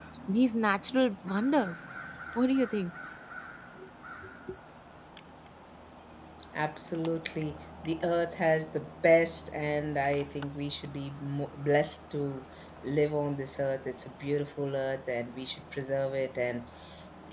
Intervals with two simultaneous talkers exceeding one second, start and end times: none

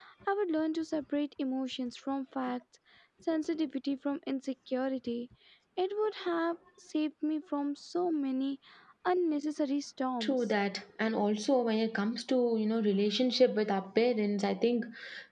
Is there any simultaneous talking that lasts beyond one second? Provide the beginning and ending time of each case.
none

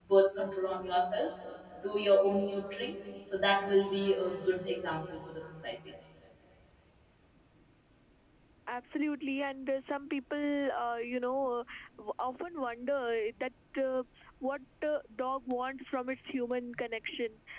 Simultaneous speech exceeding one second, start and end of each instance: none

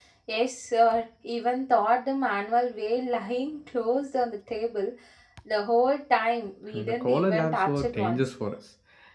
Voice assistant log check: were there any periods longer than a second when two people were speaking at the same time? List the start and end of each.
6.7-8.3

